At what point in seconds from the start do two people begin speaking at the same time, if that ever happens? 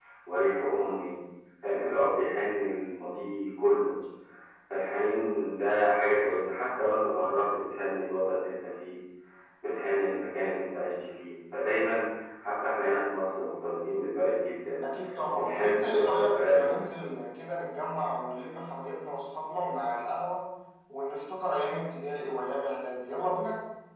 15 s

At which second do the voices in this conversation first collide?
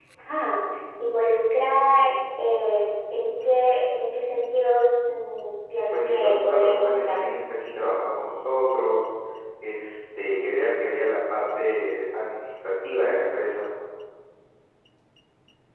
6 s

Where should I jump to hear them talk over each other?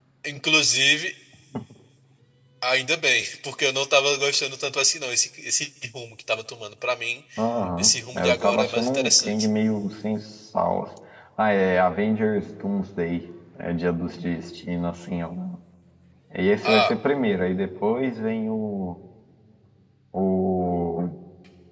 8 s

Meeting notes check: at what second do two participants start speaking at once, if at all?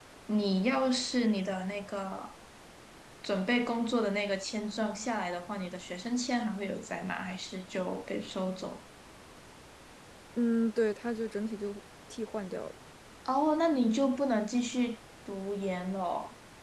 none

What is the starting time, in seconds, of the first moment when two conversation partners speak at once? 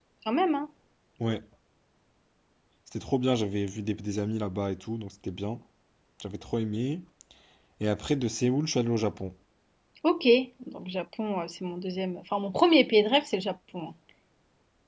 none

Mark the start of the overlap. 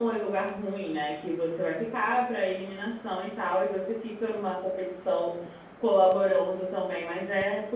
none

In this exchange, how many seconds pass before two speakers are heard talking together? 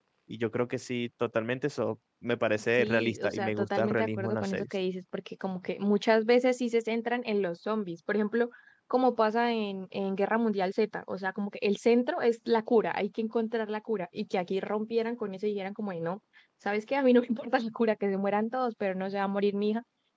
3 s

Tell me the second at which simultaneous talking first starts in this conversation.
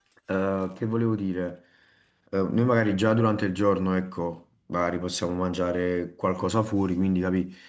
none

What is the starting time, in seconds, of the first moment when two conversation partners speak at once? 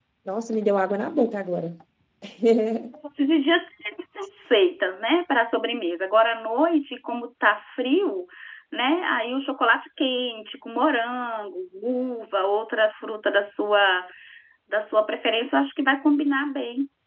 none

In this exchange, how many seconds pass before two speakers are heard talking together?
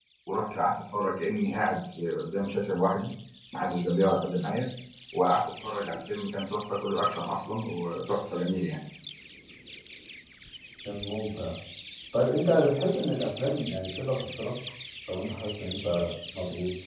none

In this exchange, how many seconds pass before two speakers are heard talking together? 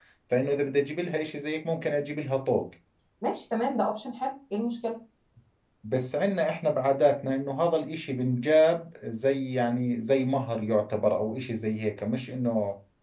none

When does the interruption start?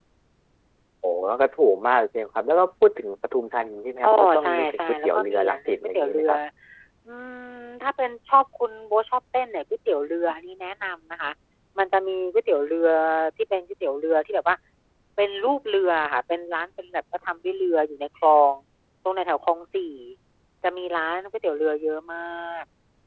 4 s

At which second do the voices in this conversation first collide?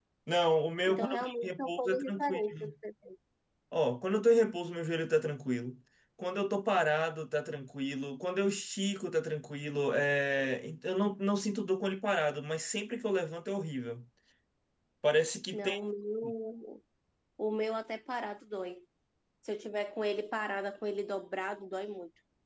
1 s

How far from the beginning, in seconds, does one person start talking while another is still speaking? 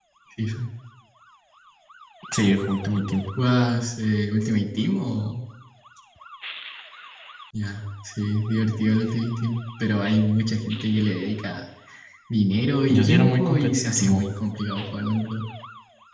13 s

